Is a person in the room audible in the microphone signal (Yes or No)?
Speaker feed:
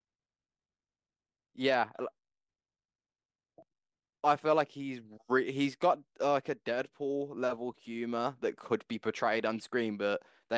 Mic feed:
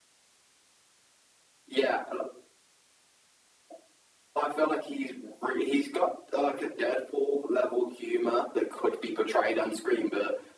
No